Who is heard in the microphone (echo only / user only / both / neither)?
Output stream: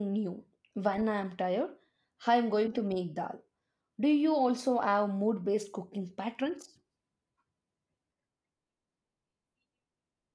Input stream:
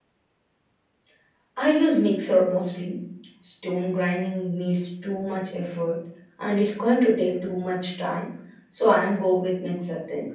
user only